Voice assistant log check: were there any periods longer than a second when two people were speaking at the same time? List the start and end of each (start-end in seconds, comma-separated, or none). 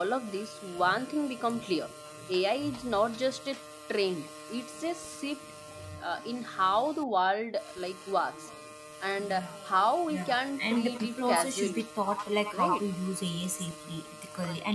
10.1-11.8